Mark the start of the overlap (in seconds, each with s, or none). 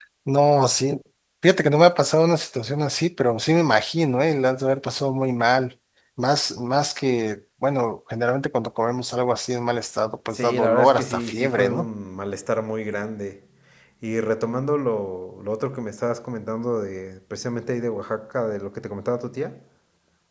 10.3 s